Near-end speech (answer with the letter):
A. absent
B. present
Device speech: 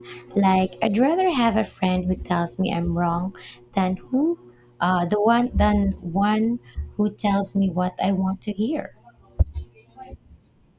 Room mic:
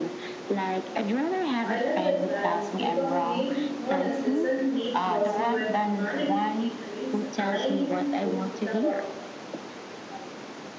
B